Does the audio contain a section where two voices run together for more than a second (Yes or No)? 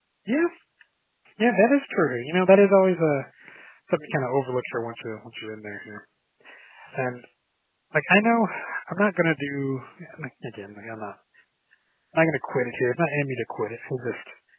No